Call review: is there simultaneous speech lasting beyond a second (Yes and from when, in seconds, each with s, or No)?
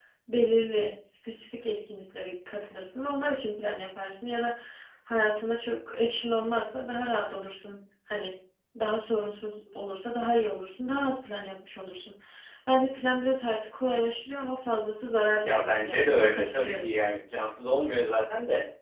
Yes, from 15.4 s